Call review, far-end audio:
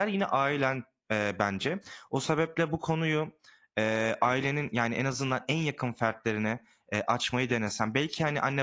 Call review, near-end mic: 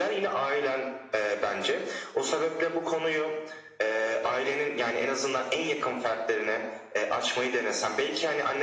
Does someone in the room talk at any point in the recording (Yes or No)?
No